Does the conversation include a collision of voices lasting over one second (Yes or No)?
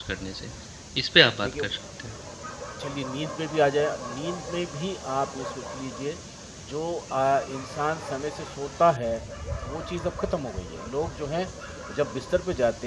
No